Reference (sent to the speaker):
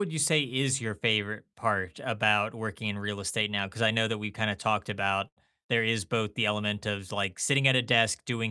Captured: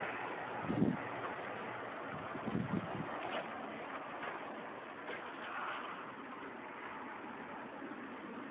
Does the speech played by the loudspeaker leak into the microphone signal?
No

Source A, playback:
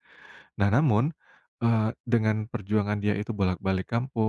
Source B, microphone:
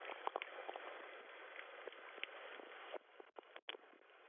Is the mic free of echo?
Yes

